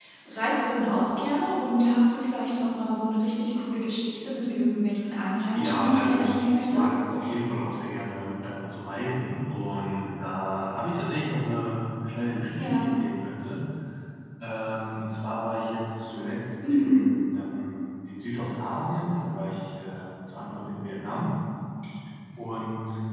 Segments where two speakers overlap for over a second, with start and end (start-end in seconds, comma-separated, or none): 5.5-7.0